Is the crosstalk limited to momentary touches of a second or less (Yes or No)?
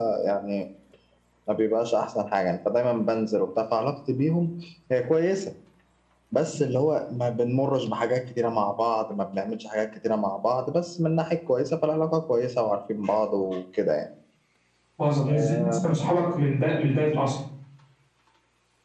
Yes